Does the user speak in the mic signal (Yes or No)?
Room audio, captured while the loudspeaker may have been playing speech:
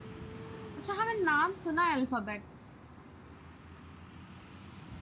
Yes